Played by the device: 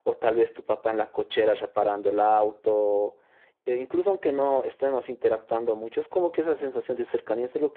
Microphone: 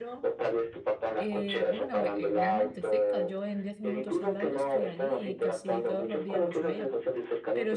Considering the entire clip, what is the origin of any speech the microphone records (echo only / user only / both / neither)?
both